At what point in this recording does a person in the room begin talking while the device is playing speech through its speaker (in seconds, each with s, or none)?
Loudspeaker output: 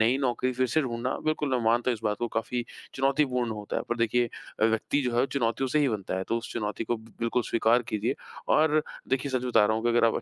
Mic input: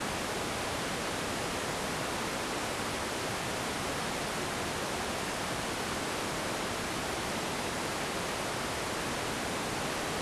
none